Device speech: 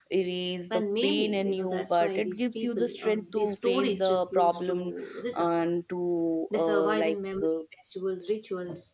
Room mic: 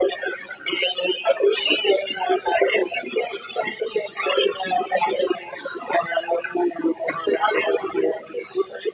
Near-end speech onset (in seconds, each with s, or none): none